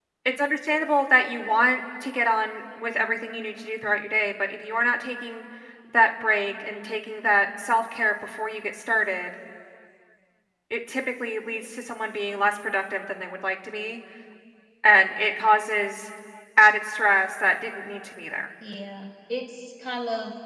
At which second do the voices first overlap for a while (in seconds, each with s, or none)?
none